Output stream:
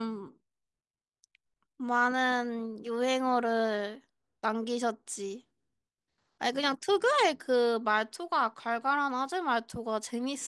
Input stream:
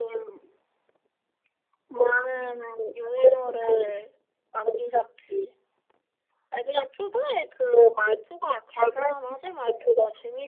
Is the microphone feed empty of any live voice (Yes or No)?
Yes